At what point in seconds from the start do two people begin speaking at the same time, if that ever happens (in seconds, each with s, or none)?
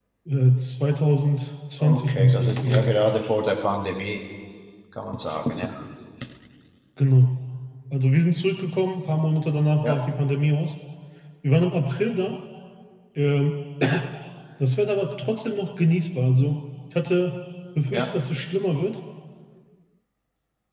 1.8 s